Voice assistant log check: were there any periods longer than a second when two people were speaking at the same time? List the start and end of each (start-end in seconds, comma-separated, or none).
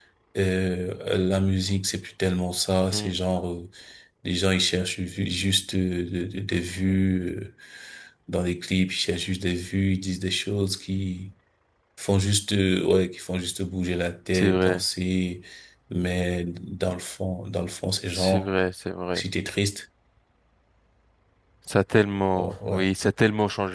none